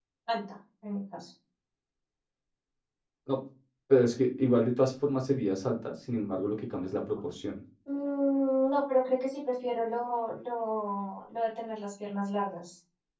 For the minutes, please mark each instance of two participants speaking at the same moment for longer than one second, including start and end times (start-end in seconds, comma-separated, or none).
none